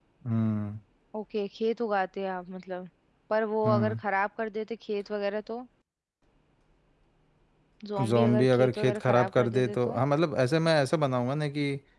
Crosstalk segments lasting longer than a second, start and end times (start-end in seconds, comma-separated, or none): 8.1-10.0